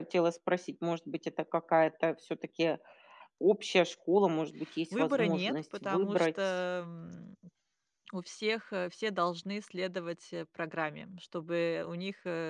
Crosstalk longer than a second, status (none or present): present